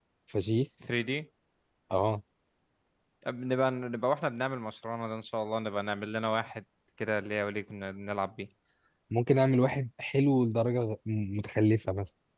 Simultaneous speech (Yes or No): No